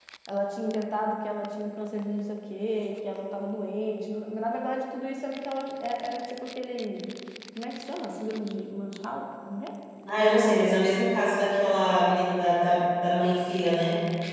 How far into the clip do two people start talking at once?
none

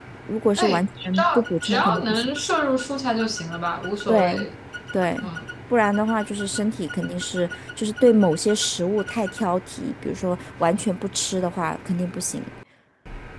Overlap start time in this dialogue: 1 s

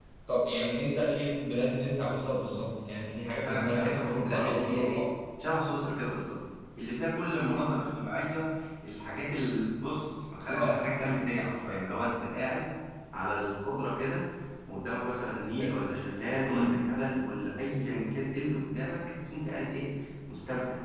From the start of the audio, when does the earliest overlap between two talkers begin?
3 s

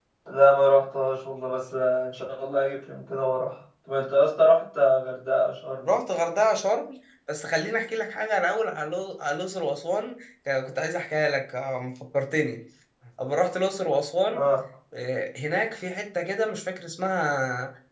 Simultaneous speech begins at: none

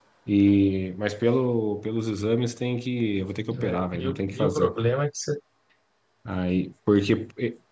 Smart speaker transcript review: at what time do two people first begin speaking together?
4 s

